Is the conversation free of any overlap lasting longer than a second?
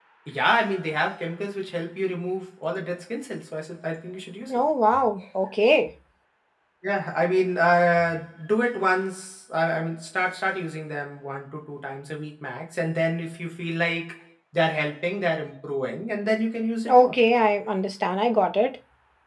Yes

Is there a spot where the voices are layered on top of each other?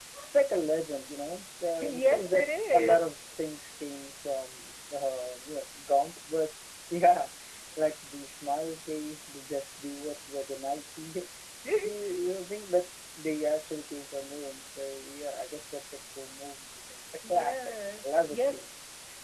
Yes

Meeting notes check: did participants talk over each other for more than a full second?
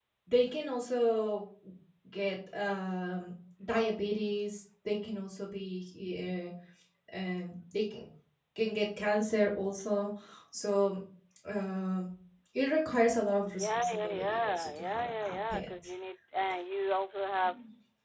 Yes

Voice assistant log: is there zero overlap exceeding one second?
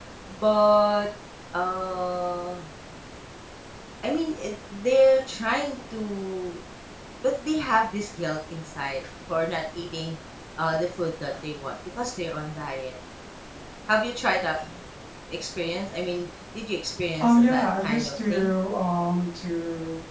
No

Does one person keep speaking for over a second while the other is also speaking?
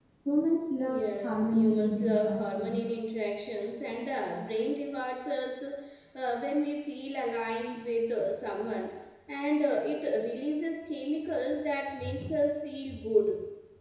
Yes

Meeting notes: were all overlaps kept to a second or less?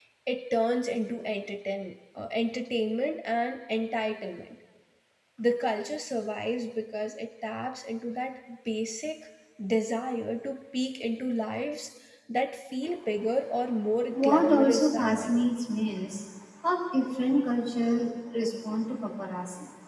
No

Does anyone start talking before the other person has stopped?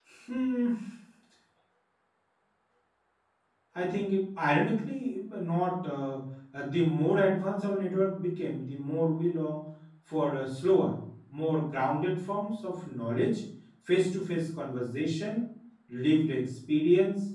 No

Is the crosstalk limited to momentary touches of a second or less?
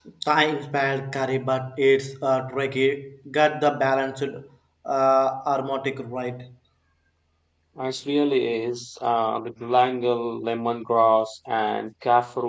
Yes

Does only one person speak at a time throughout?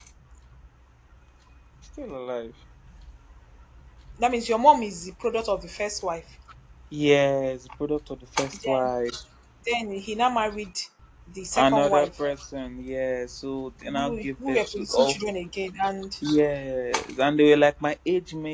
No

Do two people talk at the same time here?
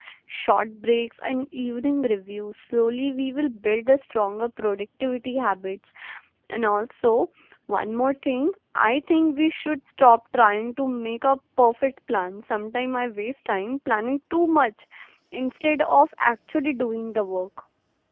No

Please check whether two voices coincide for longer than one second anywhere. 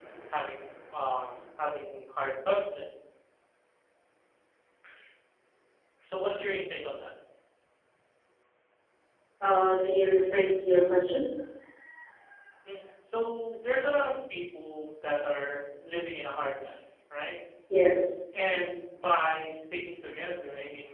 No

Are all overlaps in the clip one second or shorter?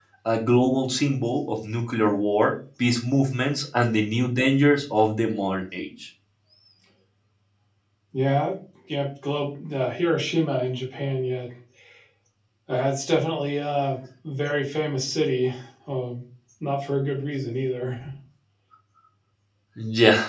Yes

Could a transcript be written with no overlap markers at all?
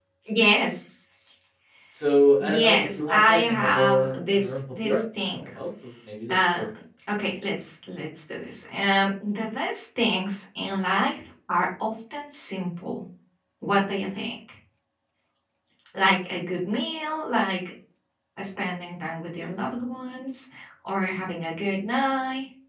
No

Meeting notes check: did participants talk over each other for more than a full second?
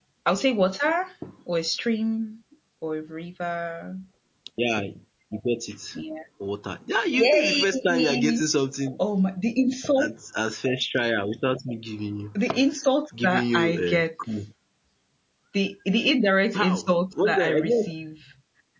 Yes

